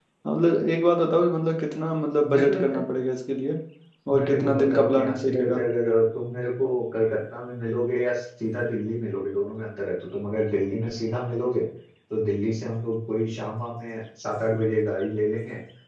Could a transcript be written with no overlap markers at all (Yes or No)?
No